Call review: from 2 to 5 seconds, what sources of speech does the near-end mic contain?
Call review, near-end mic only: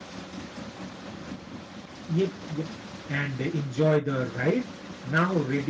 user only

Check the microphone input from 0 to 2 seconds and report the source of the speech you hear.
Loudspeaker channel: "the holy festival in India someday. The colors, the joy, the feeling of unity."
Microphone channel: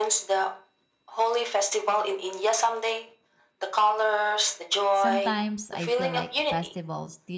echo only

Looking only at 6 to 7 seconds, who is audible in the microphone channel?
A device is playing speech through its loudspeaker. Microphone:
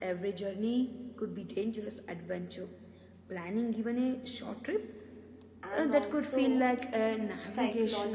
both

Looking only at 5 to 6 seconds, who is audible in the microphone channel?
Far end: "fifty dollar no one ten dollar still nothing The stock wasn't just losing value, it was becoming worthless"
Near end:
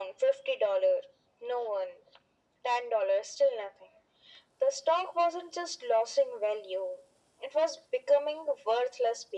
echo only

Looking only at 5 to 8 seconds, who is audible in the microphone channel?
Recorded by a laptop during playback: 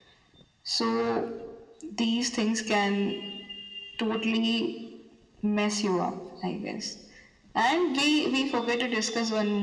echo only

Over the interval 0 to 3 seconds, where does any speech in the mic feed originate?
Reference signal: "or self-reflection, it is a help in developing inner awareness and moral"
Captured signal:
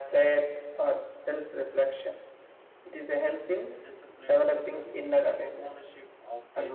echo only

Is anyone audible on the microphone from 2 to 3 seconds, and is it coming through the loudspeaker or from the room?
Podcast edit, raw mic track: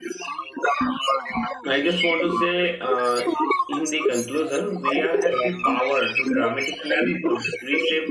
both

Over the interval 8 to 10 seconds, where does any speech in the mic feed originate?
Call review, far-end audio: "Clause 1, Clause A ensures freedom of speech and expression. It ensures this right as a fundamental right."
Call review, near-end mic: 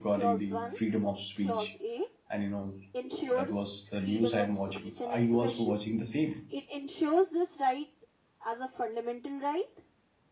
echo only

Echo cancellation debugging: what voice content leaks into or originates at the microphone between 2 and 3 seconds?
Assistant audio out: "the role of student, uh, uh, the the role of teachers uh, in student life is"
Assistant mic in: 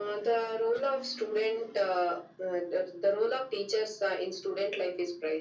echo only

